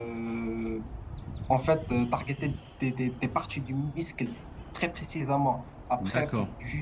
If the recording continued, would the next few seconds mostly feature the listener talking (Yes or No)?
No